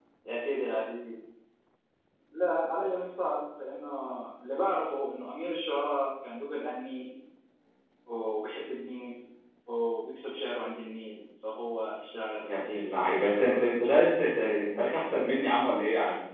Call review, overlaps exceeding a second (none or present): present